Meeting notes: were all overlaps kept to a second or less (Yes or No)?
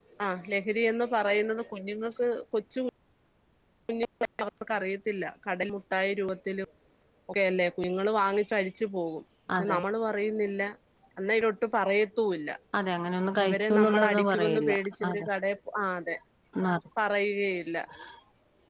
No